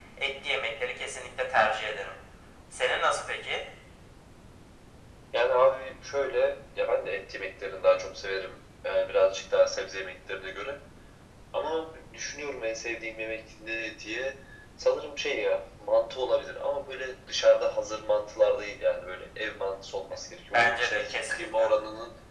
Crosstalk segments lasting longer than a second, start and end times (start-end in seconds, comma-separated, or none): 20.3-21.7